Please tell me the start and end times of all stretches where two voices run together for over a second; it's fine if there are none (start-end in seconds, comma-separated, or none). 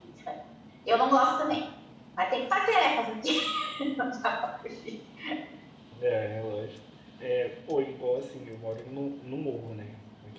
none